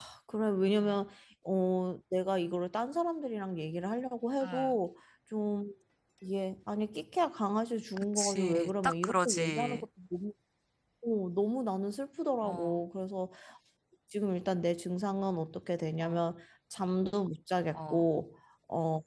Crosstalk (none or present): present